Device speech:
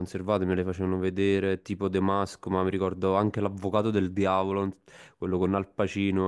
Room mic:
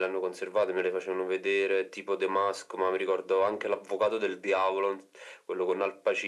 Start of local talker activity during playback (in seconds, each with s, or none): none